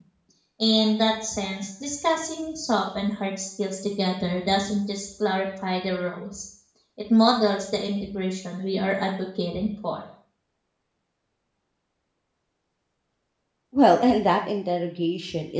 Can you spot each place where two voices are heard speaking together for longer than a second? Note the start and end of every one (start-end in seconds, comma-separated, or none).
none